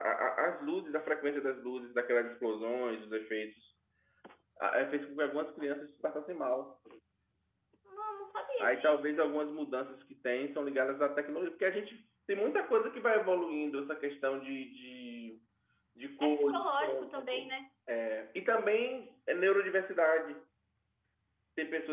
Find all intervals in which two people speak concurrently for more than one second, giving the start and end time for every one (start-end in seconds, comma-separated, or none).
16.2-17.5